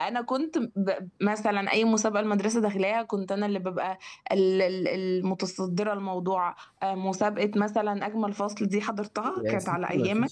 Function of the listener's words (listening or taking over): taking over